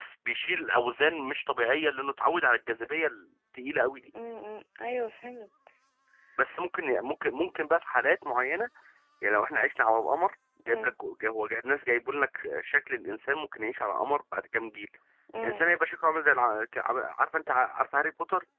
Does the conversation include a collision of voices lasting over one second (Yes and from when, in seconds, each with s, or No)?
No